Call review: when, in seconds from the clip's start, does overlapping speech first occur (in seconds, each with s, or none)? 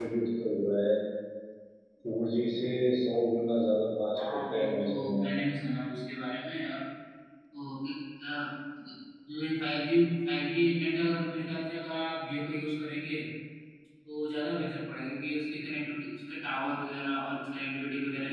4.2 s